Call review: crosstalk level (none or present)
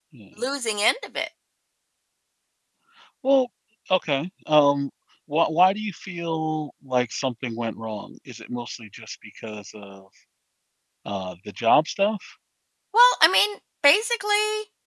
none